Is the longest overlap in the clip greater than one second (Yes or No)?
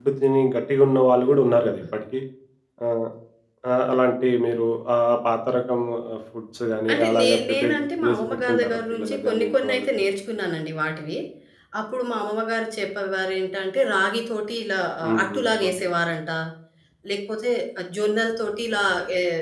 Yes